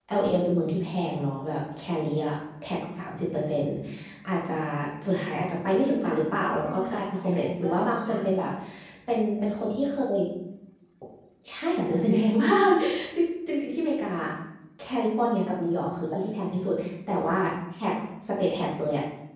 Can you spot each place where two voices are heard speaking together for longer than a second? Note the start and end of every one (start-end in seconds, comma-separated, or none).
6.1-8.2